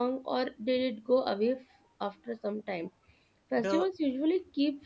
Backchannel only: Yes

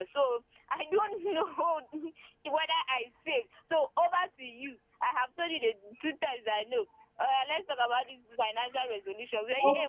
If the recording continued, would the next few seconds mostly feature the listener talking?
No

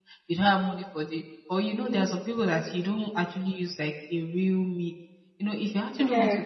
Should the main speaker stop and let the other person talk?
No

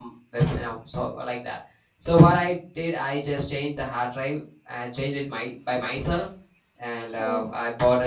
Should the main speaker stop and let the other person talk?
No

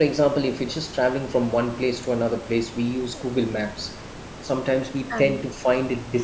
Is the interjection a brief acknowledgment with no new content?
Yes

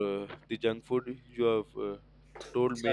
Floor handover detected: No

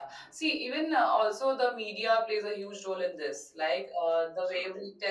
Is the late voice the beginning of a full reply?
No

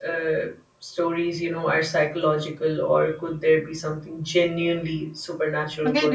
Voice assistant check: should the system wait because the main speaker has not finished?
No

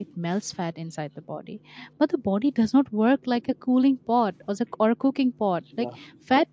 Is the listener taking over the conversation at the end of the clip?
No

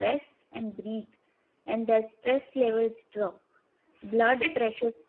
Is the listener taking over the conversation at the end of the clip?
No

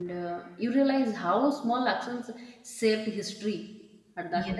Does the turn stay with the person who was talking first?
No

